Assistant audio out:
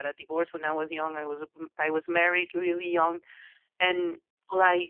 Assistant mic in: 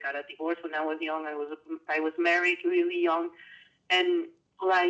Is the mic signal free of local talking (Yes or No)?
Yes